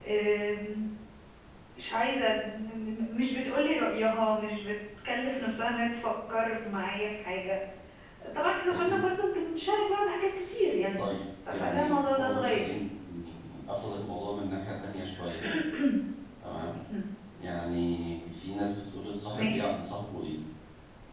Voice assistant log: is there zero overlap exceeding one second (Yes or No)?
No